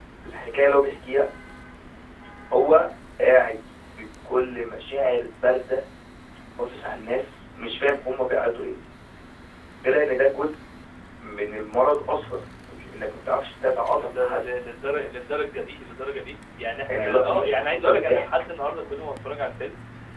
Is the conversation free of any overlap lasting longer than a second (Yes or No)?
No